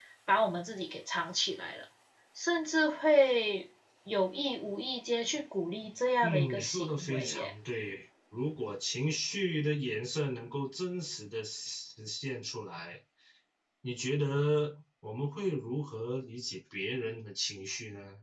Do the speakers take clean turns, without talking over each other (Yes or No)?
No